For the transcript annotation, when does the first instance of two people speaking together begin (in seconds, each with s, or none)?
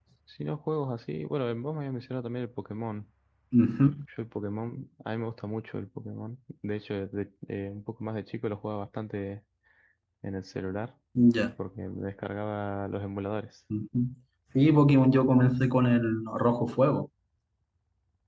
none